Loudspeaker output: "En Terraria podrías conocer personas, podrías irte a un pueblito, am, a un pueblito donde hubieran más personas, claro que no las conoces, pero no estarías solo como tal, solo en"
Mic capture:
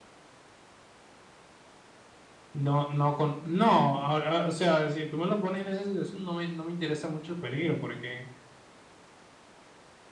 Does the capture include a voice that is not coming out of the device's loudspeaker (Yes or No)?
Yes